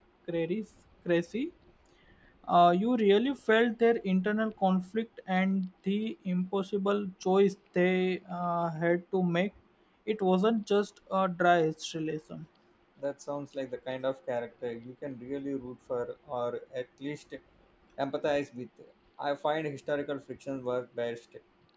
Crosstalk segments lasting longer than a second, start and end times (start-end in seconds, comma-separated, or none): none